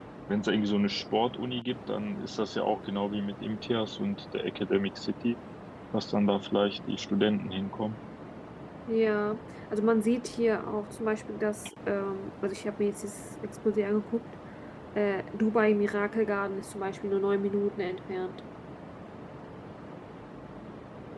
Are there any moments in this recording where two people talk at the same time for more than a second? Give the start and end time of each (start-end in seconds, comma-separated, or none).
none